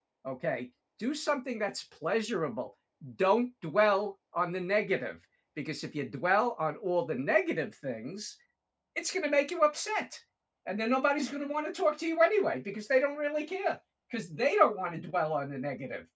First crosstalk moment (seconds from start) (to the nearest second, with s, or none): none